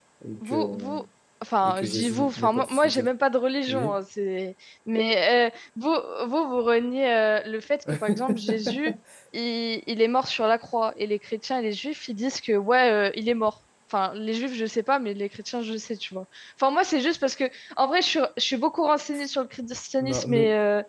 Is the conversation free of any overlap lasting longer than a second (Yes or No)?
No